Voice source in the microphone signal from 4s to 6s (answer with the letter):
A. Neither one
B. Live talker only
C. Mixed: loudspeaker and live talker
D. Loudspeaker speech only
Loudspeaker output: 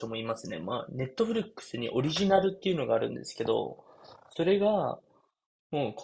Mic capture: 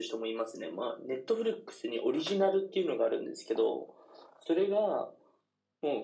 D